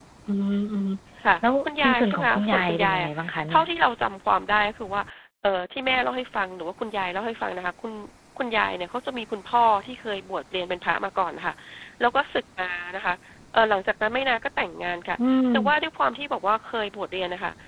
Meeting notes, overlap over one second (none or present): present